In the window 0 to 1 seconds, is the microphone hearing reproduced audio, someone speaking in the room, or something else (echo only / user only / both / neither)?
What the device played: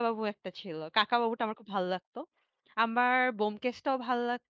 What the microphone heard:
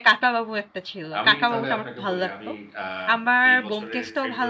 echo only